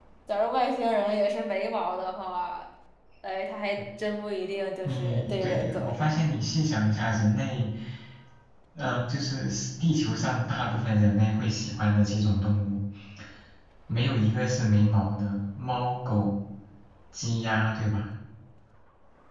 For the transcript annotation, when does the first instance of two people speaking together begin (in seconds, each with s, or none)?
4.8 s